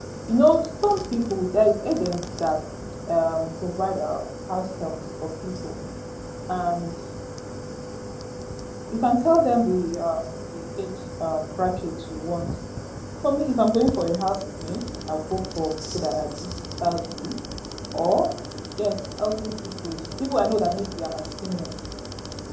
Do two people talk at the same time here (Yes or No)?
No